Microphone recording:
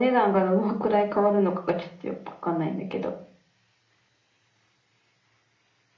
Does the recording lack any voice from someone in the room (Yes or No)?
Yes